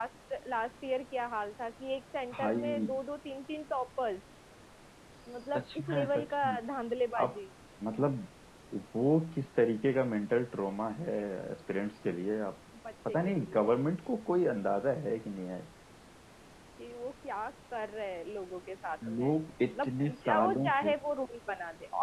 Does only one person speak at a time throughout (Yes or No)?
No